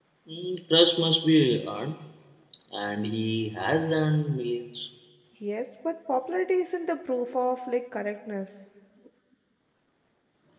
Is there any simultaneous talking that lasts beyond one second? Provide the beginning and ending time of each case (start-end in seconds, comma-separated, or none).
none